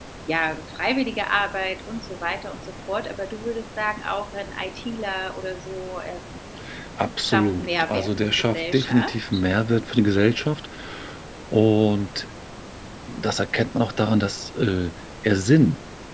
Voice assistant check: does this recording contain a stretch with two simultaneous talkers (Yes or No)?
Yes